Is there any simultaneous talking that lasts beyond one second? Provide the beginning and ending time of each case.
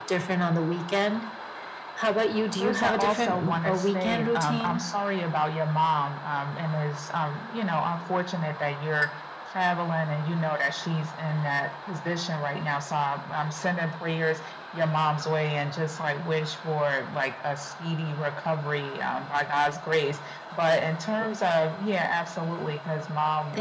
2.6-4.8

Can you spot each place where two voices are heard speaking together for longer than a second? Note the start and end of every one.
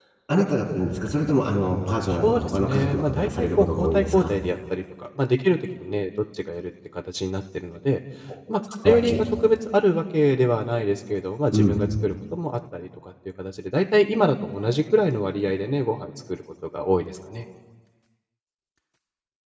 2.0-4.3

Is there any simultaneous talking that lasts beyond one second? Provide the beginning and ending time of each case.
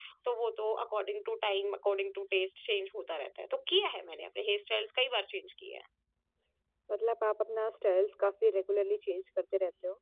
none

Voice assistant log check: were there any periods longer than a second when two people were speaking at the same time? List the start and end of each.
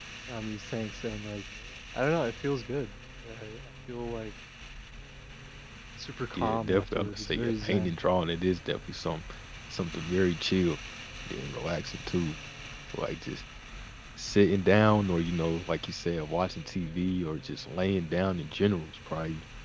6.3-8.0

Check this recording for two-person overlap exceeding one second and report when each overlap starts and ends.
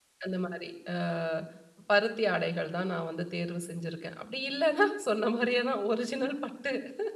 none

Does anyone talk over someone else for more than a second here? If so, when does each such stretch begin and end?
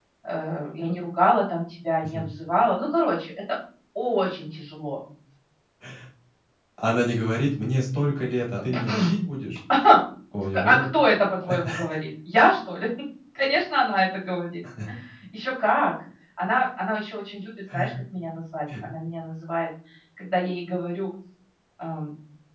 none

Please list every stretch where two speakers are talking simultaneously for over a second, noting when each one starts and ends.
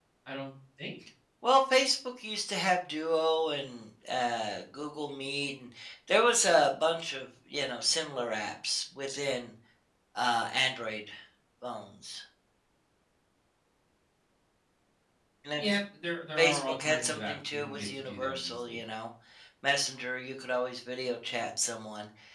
16.4-18.8

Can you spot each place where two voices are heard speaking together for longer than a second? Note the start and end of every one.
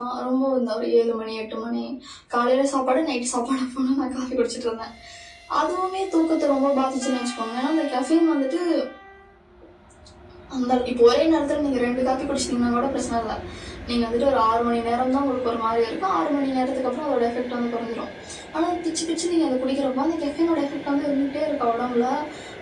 none

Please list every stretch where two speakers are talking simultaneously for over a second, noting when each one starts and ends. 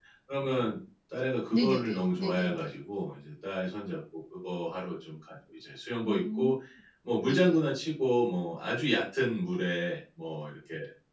1.5-2.8

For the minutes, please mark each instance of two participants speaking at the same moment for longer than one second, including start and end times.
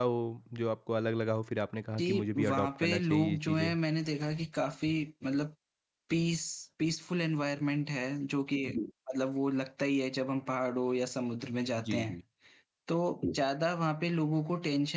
2.0-3.8

